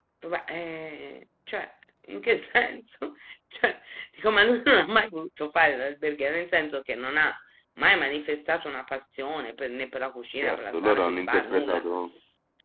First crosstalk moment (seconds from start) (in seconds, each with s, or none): 10.4 s